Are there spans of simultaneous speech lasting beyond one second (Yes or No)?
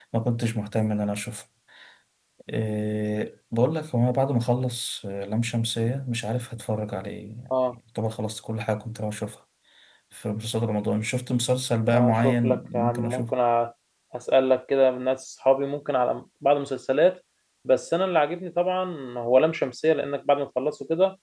Yes